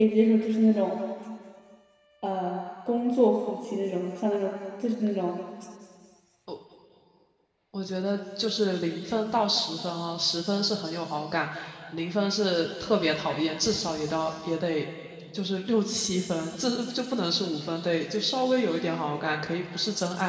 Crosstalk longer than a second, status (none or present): none